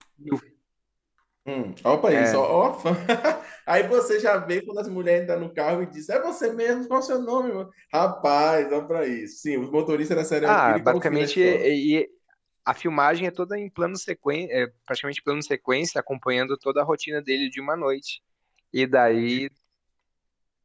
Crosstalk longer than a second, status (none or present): present